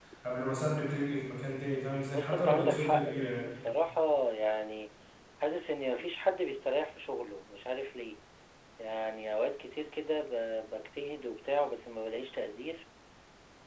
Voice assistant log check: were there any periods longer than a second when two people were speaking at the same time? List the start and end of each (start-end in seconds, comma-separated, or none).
2.1-3.4